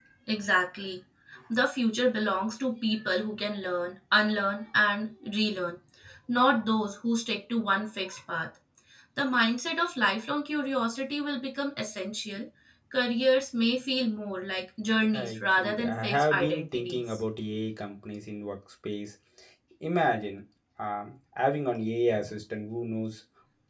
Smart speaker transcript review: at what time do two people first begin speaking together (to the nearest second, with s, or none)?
15 s